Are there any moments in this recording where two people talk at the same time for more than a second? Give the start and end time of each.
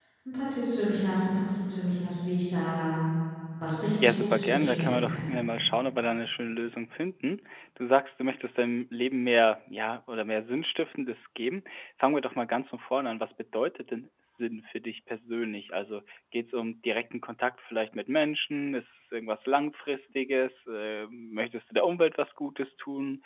4.0-5.3

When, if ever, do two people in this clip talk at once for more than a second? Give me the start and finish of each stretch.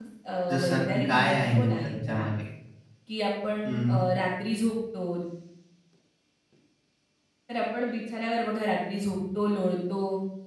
0.5-2.2

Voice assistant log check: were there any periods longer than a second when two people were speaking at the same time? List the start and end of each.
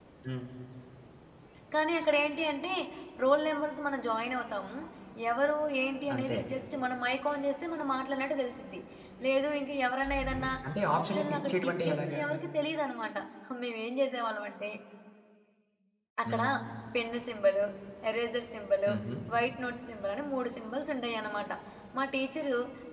11.0-12.2

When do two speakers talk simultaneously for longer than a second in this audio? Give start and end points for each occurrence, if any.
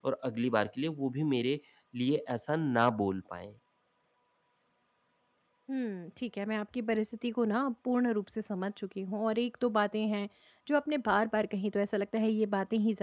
none

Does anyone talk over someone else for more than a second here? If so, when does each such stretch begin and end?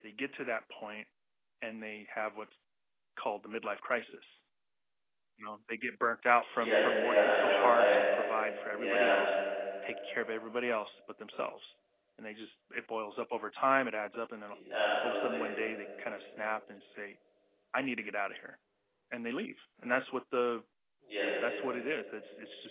6.5-7.9

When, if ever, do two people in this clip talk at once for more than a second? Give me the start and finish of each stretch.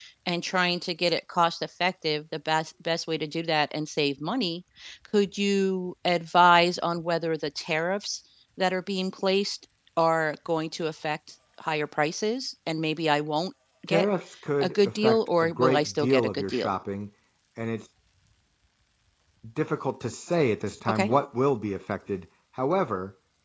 14.6-16.7

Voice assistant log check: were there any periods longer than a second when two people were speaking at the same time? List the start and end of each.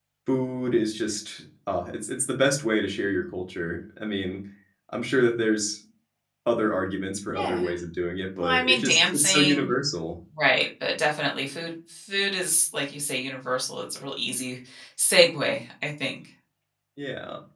8.4-9.7

